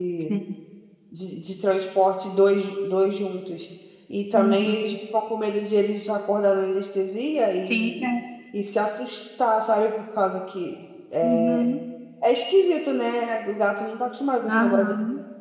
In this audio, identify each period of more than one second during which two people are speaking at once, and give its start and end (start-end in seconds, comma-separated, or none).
none